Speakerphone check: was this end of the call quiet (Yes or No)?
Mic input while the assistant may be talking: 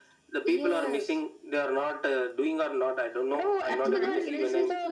No